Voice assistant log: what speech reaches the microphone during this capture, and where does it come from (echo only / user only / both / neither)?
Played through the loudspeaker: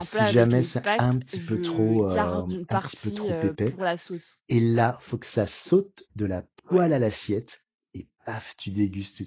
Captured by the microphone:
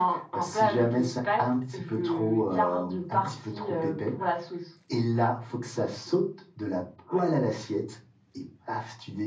echo only